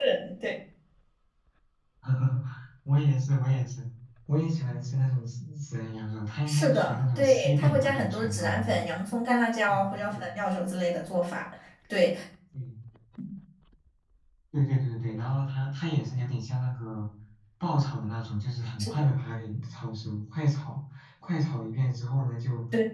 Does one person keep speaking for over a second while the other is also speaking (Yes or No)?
Yes